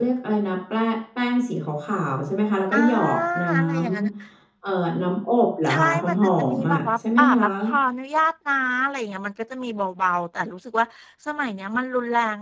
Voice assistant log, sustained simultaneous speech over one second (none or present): present